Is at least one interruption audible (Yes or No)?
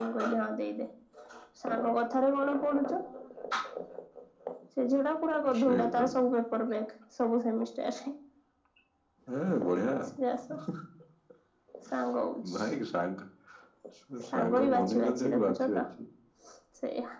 Yes